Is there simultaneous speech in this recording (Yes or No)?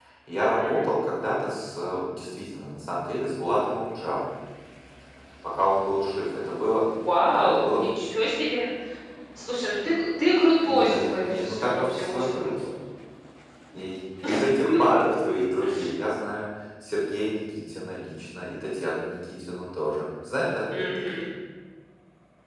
Yes